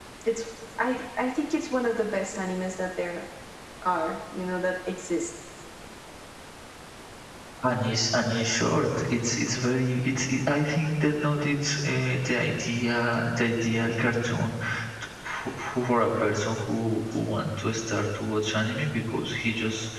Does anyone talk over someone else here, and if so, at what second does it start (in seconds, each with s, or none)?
none